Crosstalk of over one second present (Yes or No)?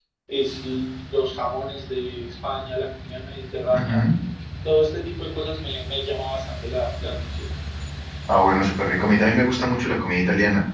No